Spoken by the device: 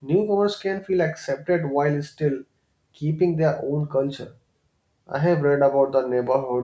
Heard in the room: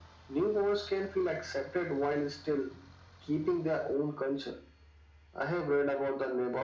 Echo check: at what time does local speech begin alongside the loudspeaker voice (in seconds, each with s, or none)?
none